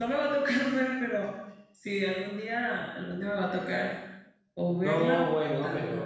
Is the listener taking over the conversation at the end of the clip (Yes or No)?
Yes